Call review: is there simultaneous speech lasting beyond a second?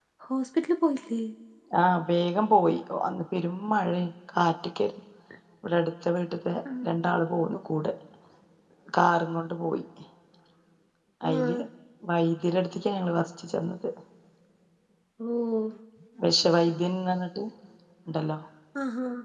No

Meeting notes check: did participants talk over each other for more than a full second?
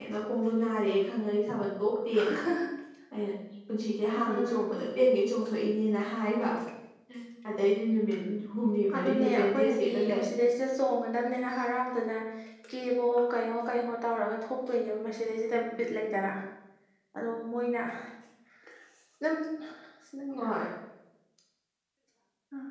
Yes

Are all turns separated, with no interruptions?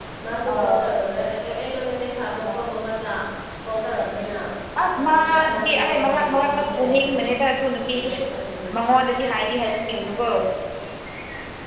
No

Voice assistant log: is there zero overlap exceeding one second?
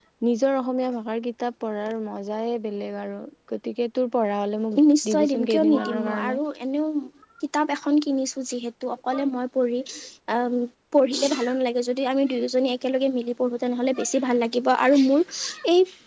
No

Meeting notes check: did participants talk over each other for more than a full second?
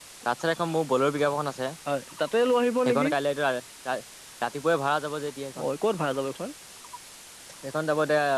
No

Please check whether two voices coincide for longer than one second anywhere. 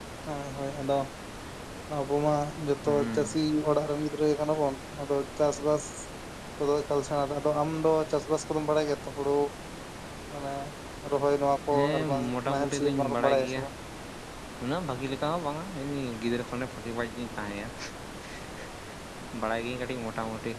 Yes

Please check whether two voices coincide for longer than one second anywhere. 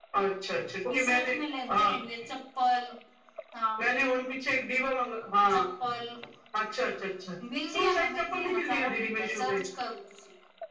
Yes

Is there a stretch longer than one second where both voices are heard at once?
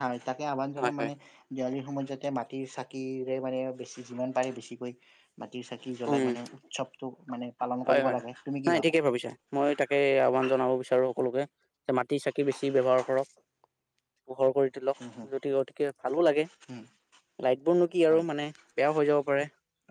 No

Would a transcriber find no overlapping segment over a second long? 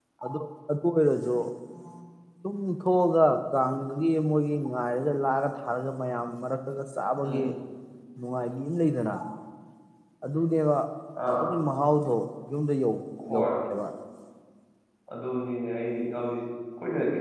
Yes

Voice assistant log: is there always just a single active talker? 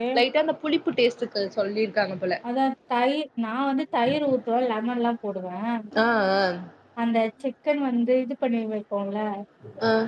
Yes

